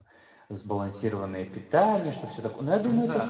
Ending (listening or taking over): listening